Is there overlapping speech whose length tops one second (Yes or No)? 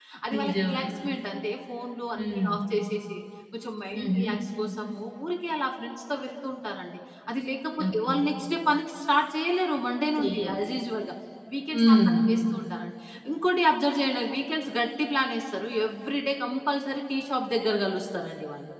No